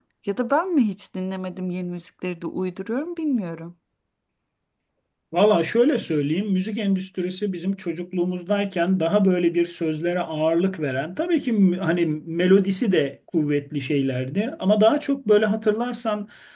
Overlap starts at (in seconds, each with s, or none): none